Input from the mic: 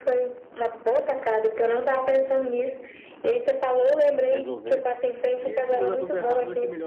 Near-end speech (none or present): present